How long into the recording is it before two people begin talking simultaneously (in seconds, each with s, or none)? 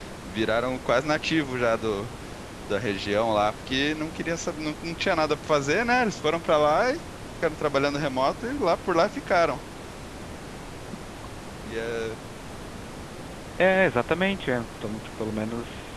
none